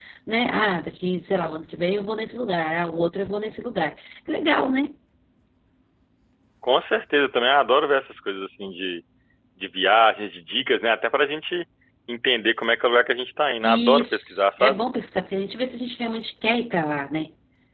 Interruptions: present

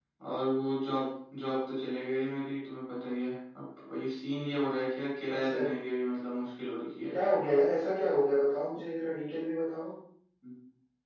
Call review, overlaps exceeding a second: none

